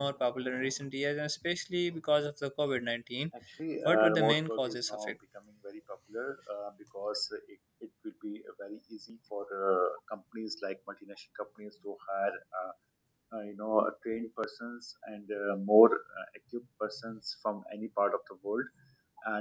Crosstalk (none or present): present